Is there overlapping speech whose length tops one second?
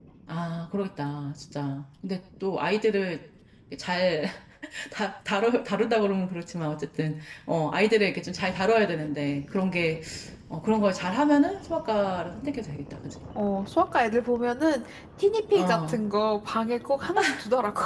No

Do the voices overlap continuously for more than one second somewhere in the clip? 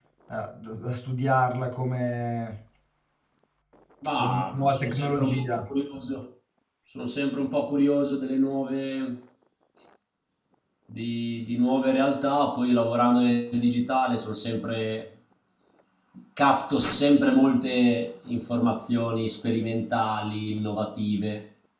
Yes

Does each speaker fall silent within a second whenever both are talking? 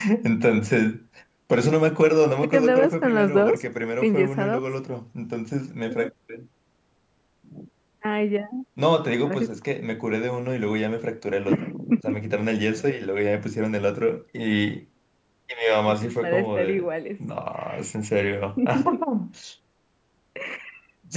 No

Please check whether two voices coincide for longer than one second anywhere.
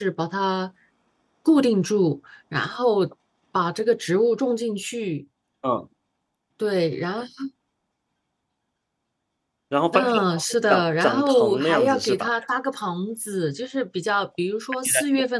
Yes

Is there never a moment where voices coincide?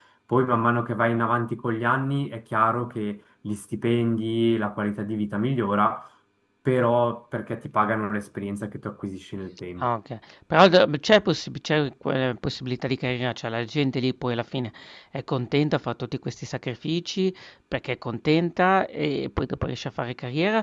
Yes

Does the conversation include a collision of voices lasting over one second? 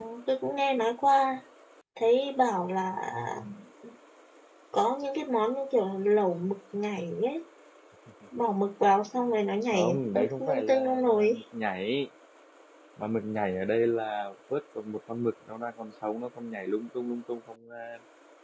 Yes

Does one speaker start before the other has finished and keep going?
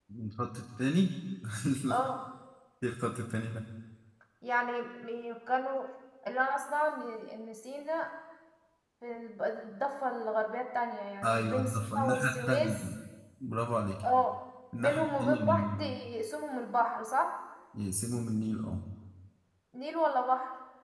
Yes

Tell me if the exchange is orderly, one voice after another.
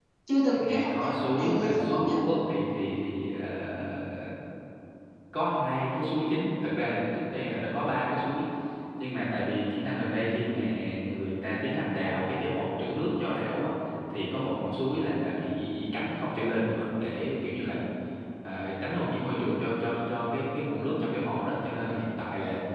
No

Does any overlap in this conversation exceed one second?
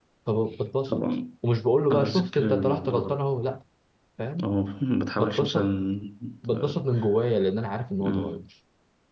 Yes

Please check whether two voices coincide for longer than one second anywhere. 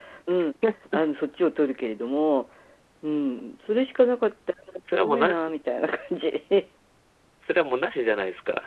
No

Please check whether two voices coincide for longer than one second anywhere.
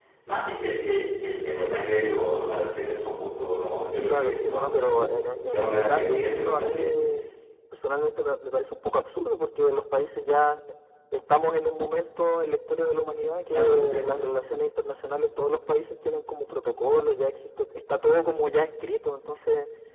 Yes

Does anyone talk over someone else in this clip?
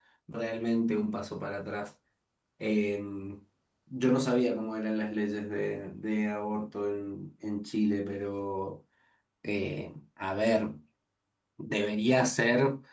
No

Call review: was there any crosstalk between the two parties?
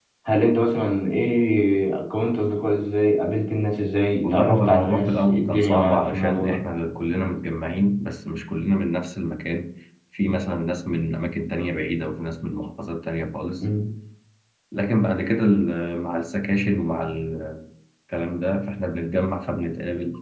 Yes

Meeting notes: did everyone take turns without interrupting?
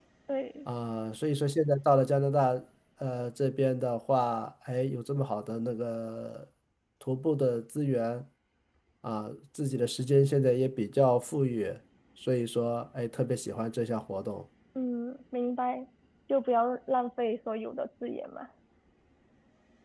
Yes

